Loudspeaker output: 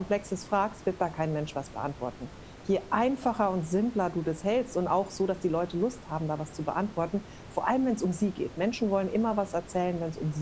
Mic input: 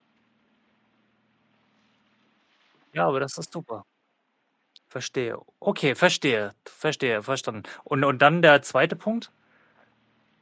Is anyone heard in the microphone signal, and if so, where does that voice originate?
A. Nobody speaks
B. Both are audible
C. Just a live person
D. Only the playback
C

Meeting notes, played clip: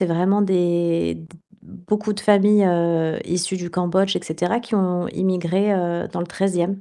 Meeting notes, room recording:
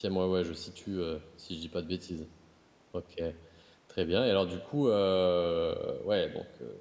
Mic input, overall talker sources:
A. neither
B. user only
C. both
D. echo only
B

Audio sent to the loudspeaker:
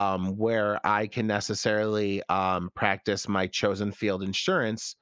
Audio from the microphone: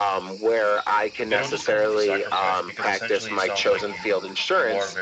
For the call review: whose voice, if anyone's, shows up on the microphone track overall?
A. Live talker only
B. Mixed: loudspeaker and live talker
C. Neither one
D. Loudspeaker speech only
B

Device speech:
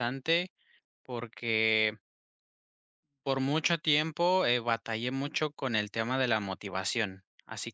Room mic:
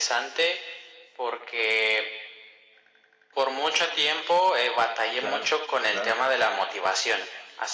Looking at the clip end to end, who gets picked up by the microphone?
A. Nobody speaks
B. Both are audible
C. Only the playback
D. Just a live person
B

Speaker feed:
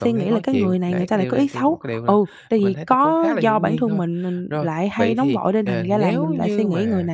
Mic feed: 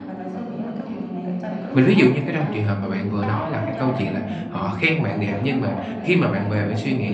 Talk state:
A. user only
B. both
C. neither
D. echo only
B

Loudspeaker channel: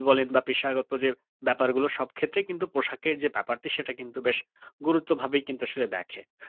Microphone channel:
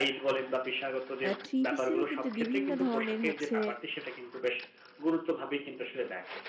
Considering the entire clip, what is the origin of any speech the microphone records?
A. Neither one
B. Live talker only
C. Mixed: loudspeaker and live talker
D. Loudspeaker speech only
C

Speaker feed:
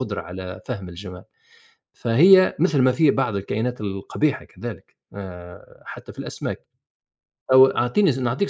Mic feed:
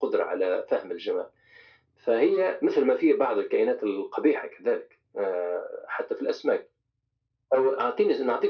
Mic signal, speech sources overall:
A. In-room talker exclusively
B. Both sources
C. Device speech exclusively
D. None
C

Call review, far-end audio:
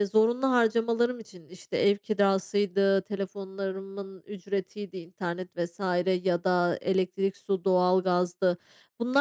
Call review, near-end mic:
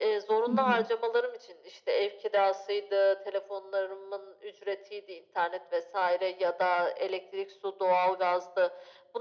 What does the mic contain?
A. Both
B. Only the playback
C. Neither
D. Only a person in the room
A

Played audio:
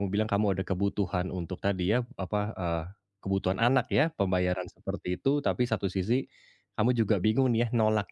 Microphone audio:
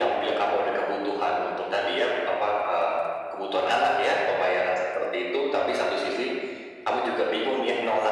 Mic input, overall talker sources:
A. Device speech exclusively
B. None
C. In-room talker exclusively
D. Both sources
A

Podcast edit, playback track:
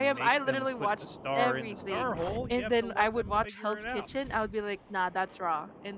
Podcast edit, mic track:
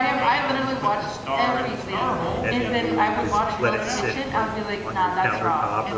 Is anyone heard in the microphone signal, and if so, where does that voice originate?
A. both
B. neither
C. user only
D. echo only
A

